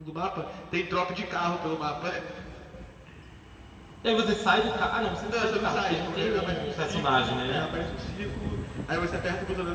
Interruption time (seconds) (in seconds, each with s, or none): 5.3 s